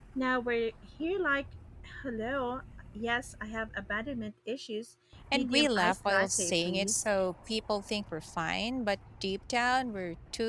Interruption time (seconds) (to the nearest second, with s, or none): 5 s